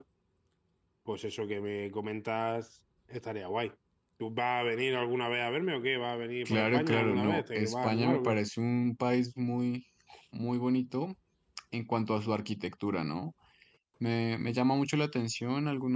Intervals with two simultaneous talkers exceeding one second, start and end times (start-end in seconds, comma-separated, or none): 6.5-8.4